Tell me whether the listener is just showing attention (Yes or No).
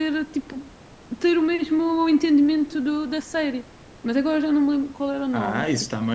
No